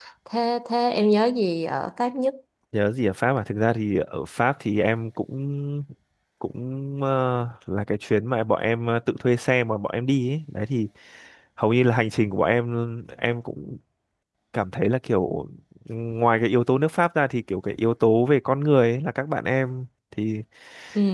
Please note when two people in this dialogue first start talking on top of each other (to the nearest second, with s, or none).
none